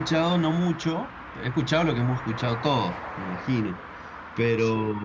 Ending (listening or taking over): listening